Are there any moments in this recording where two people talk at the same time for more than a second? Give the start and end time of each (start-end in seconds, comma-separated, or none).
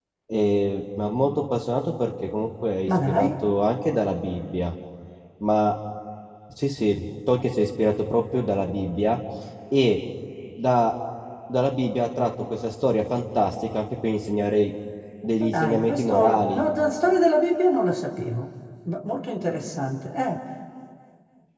15.4-16.6